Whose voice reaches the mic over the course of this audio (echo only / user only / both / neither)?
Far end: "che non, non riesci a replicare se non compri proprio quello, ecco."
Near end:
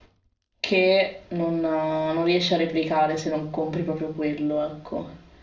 echo only